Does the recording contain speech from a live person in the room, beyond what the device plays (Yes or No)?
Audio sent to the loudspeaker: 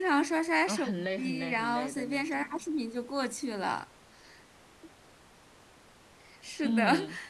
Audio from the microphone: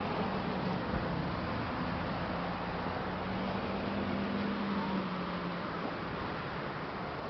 No